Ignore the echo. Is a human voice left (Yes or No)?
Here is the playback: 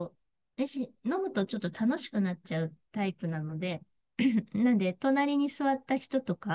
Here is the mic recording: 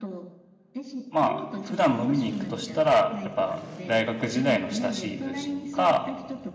Yes